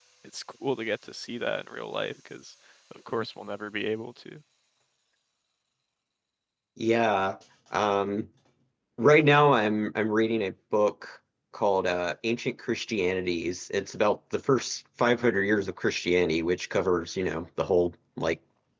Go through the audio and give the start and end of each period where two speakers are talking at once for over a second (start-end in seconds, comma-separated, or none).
none